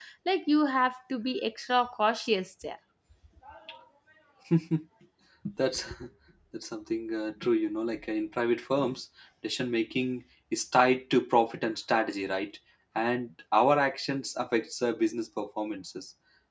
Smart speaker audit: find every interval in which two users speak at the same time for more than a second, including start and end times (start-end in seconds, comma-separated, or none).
none